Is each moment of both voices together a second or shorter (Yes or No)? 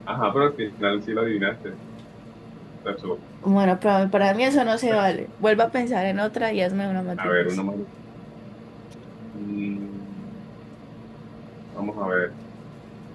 Yes